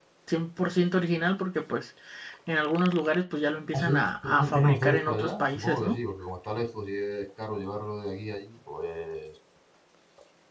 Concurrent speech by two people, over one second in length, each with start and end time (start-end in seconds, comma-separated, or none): 3.7-5.9